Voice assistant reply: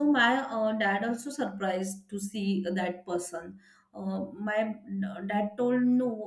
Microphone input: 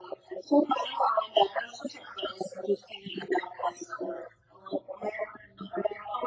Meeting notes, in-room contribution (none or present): none